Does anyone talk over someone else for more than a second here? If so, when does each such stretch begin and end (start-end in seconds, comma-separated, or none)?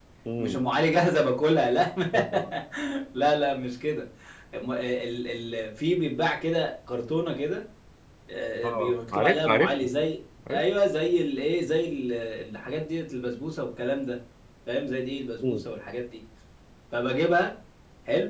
8.6-9.9